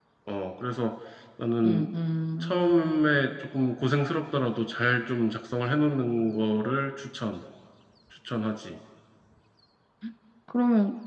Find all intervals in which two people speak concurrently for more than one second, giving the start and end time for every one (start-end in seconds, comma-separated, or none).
none